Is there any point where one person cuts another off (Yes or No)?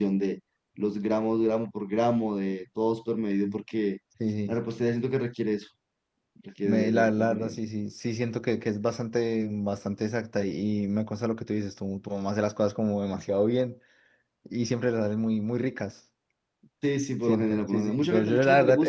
Yes